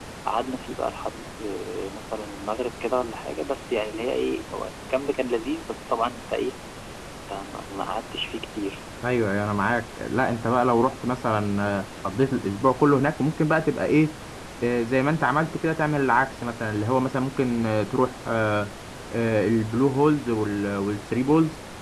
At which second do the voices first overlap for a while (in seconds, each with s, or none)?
none